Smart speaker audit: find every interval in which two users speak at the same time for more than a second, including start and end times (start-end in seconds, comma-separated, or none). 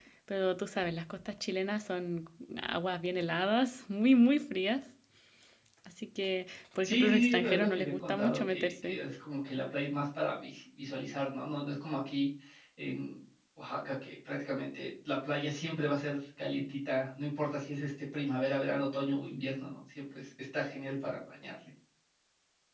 6.8-9.0